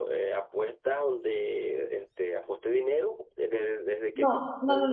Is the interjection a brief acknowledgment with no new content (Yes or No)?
No